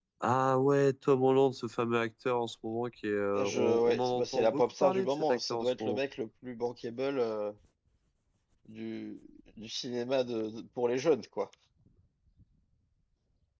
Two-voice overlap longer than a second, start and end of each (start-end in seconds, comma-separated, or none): 3.4-6.0